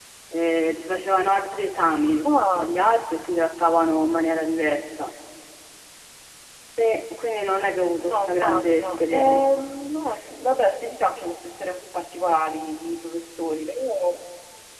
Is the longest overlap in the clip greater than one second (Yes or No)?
Yes